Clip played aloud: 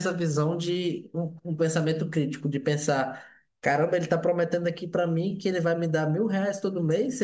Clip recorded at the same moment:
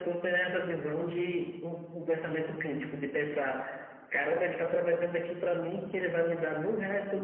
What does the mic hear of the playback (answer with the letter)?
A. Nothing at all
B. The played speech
B